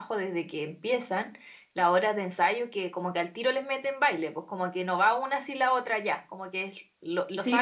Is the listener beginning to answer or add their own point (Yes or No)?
Yes